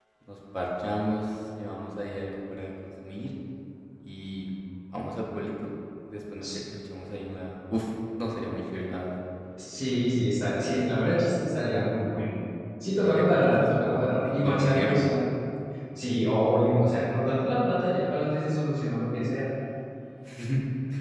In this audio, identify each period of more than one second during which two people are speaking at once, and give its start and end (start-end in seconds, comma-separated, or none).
13.0-15.0